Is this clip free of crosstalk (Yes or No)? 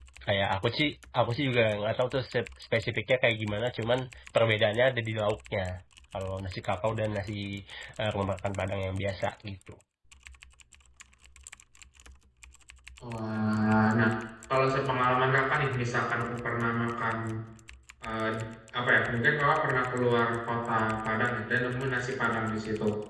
Yes